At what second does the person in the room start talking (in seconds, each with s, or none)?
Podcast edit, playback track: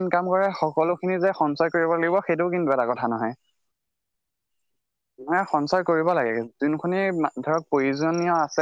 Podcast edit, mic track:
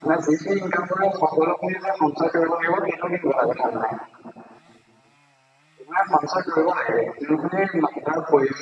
none